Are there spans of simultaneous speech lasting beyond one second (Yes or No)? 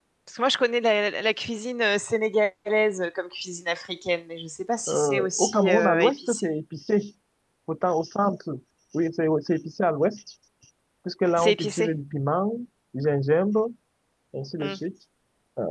Yes